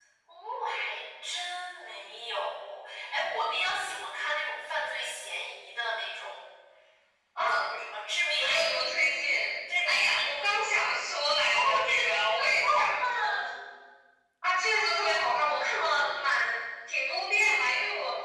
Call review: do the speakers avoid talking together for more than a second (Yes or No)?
No